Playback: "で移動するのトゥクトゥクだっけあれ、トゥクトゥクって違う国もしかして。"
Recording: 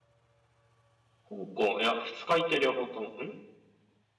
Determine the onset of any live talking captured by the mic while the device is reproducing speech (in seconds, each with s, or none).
1.3 s